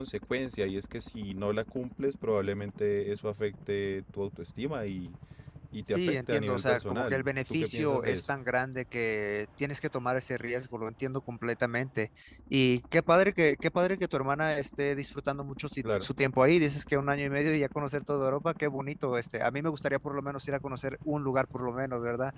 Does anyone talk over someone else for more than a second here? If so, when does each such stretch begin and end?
5.9-8.2

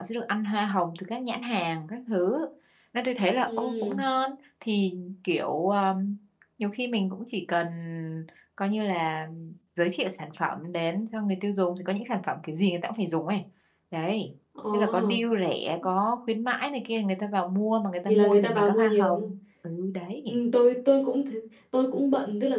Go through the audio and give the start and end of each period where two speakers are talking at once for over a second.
18.1-19.3

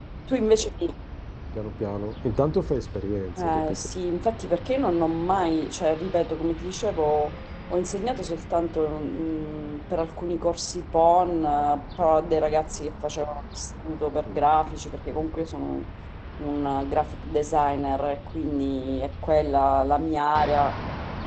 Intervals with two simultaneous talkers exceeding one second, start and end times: none

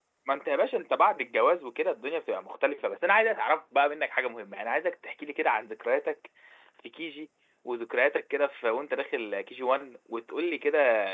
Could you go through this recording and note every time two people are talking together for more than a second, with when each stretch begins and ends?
none

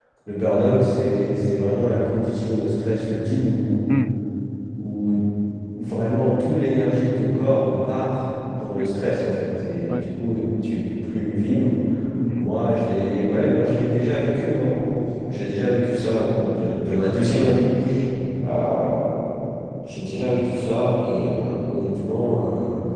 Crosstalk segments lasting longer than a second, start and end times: none

